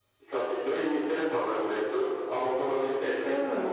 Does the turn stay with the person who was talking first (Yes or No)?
Yes